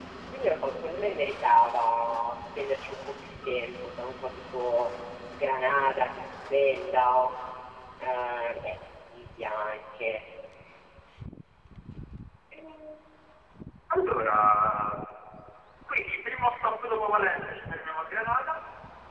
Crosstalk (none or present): none